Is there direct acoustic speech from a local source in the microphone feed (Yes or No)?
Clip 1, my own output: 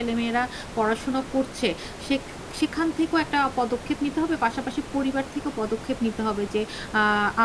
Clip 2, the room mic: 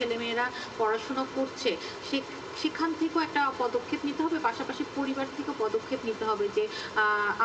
No